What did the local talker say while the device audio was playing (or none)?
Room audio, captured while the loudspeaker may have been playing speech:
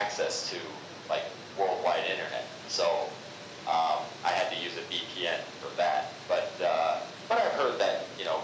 none